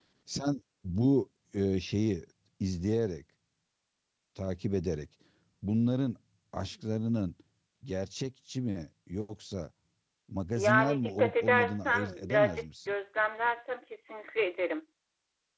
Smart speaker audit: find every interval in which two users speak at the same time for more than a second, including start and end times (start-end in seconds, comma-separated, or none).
10.6-12.9